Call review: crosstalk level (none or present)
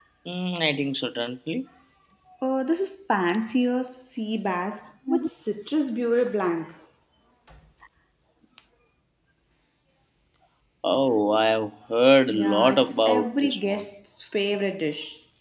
present